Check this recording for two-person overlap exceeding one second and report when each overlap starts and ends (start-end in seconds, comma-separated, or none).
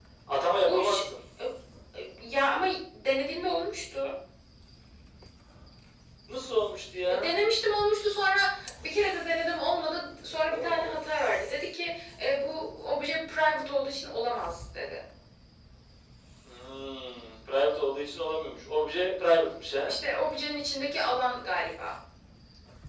none